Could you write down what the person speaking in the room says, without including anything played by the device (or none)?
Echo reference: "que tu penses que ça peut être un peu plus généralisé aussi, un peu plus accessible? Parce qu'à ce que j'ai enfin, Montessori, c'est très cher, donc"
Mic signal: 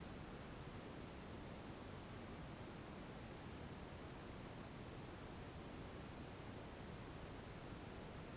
none